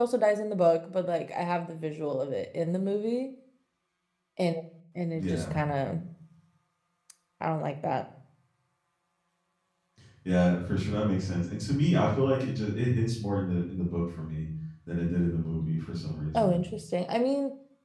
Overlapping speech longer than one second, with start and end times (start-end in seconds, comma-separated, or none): none